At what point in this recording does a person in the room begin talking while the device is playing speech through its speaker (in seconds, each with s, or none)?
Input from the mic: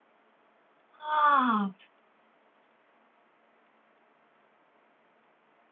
1.0 s